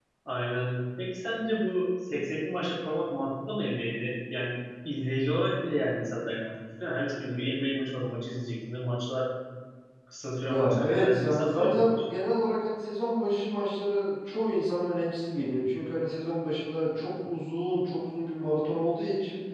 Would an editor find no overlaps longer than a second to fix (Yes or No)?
No